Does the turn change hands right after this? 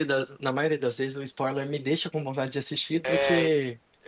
Yes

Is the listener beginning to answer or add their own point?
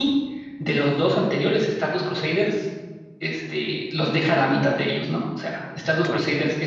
No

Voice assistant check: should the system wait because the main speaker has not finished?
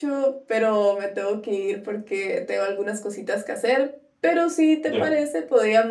Yes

